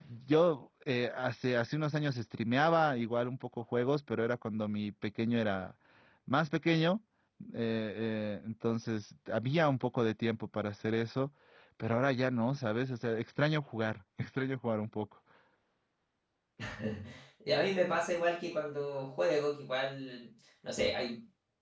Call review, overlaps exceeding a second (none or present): none